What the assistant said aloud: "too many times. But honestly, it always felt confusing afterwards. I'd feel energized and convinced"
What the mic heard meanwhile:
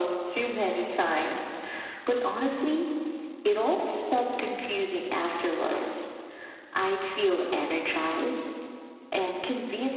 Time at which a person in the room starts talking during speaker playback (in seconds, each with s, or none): none